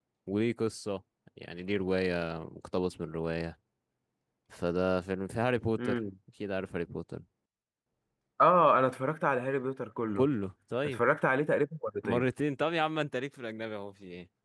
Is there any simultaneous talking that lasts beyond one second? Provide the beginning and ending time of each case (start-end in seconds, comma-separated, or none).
none